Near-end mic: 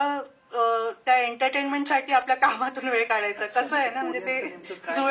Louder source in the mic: echo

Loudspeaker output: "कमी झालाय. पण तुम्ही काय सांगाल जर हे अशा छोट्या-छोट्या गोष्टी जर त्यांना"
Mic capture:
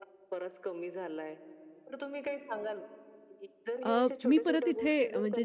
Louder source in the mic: user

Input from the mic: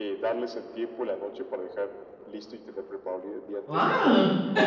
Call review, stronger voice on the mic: user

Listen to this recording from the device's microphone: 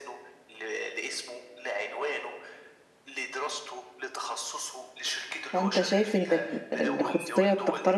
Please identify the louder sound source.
user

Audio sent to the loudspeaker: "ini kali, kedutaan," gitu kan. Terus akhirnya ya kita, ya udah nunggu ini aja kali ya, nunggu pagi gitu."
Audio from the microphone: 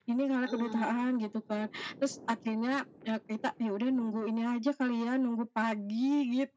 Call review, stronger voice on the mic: echo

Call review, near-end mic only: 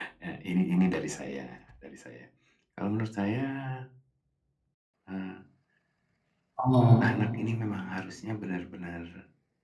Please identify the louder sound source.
user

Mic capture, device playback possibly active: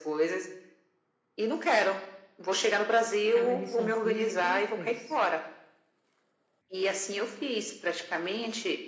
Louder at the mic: echo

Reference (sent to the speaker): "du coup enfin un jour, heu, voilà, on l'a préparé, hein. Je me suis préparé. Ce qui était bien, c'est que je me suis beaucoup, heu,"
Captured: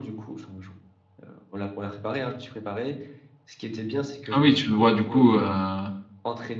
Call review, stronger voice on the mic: user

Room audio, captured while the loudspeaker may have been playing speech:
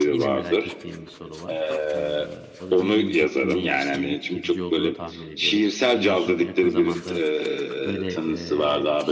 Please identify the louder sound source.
echo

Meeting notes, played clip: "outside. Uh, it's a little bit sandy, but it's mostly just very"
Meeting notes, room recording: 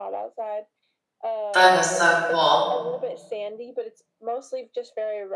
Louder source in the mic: user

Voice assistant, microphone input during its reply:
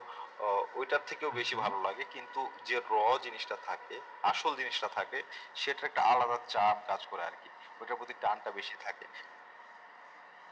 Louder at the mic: echo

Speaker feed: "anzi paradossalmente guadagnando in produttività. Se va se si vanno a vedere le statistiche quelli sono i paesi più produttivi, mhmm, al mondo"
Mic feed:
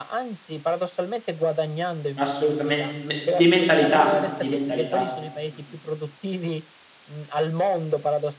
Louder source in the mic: user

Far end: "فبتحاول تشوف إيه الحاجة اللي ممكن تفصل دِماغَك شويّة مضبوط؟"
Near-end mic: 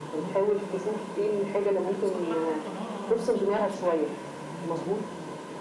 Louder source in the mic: echo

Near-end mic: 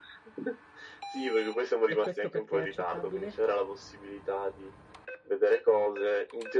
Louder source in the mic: echo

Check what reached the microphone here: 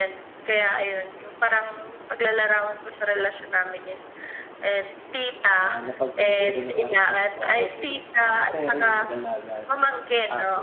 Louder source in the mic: echo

